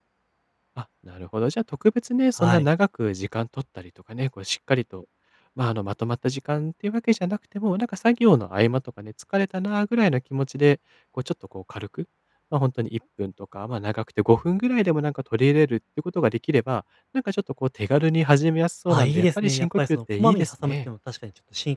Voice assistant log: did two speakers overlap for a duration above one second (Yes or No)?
Yes